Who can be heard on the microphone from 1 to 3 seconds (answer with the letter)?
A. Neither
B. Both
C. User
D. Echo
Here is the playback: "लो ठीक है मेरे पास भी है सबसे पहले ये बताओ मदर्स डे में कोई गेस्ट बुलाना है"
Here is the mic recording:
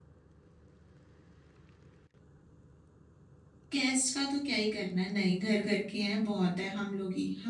A